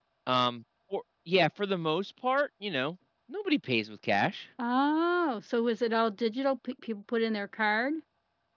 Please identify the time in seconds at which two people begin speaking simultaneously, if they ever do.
none

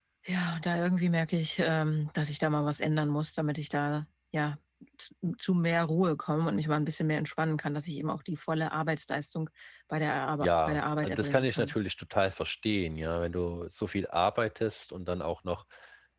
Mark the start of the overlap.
10.4 s

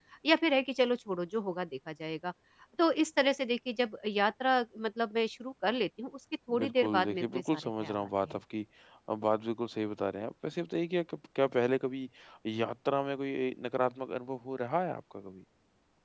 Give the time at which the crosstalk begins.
6.5 s

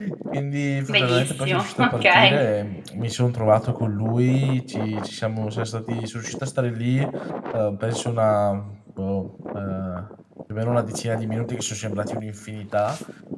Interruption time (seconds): 0.9 s

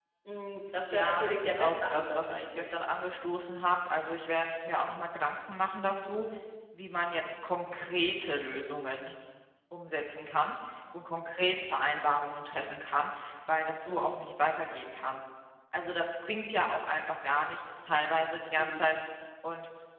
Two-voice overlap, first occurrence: 0.9 s

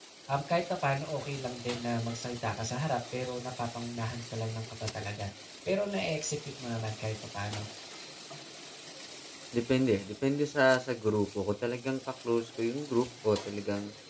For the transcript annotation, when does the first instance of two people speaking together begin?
none

